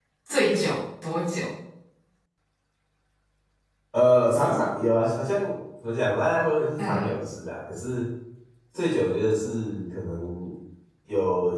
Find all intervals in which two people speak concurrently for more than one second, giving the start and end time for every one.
none

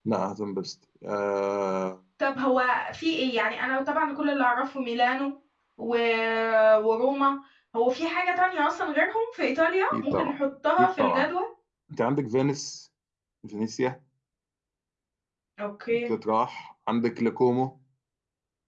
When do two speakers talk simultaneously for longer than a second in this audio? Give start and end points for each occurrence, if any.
none

